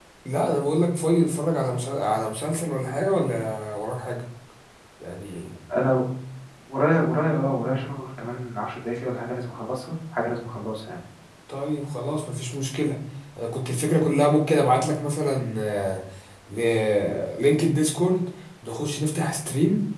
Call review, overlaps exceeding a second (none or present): none